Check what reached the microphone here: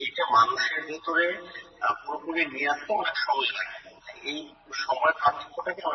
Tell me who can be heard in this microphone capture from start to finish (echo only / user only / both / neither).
echo only